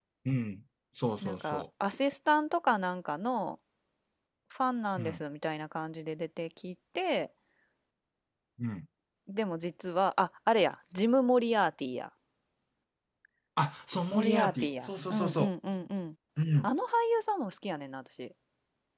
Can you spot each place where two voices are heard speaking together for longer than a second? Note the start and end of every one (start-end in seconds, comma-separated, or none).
14.1-15.5